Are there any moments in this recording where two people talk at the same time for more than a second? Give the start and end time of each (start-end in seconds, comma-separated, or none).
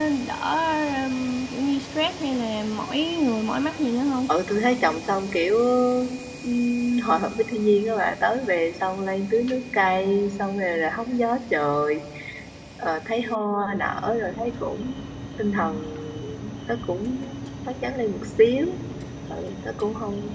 none